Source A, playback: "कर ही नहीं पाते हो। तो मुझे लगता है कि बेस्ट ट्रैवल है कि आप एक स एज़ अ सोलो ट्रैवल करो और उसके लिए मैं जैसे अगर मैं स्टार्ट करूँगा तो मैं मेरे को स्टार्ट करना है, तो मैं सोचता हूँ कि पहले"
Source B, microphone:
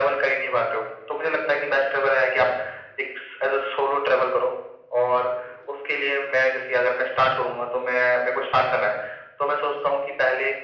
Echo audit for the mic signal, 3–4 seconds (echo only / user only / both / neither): echo only